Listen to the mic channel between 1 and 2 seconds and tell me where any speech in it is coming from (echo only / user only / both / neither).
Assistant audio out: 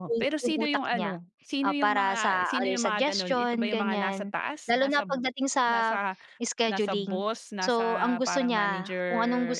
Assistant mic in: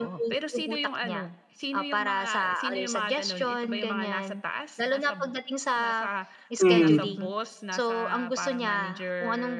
echo only